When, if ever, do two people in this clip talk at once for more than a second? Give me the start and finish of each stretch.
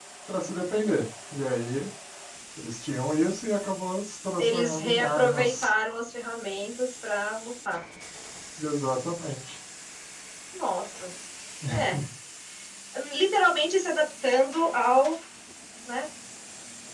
4.4-5.7

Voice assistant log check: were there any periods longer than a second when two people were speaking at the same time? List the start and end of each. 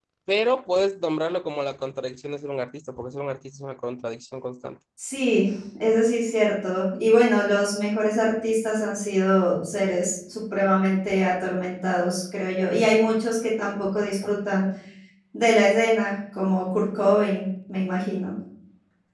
none

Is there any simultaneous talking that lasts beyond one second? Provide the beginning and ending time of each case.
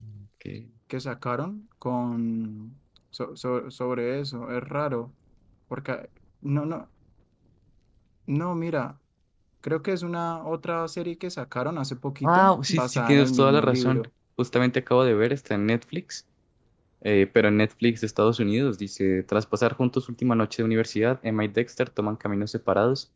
12.2-14.1

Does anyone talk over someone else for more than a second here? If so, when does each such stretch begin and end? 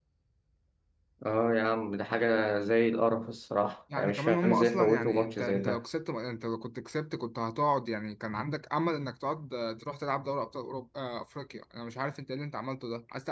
4.0-5.8

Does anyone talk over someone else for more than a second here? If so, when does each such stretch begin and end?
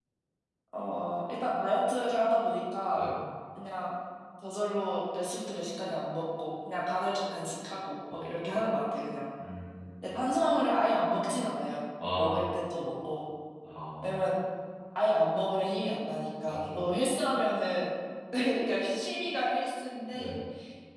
none

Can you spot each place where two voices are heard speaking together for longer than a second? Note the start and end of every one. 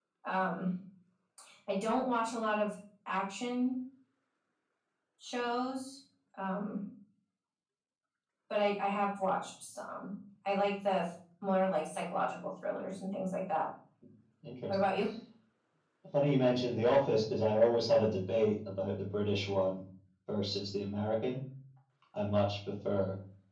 none

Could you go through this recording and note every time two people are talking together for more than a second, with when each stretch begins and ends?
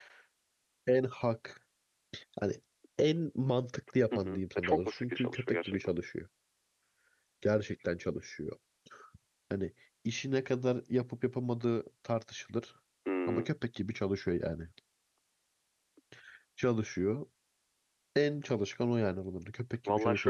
4.1-5.8

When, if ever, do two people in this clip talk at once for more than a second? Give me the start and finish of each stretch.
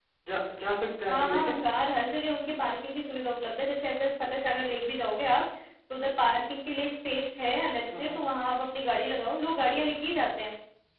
none

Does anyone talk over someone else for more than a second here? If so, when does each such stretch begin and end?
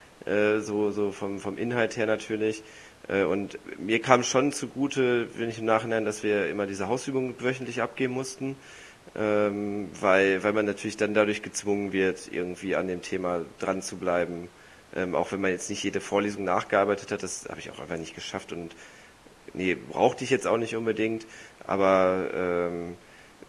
none

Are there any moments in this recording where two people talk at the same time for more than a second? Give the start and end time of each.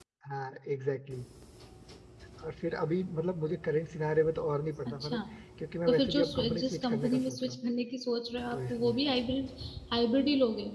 5.9-7.5

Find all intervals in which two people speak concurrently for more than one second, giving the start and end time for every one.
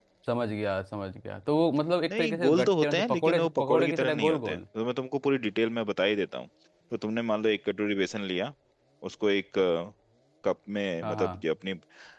2.1-4.6

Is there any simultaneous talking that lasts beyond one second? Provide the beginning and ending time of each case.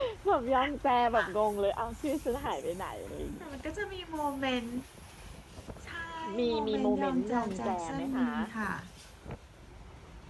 6.5-8.3

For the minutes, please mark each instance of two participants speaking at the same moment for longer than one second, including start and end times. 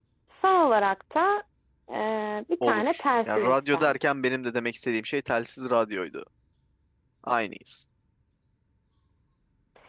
2.6-4.0

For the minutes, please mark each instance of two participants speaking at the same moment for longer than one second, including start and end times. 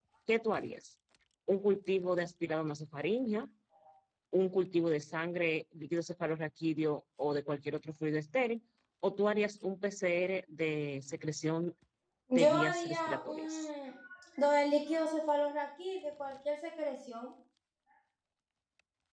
12.3-13.7

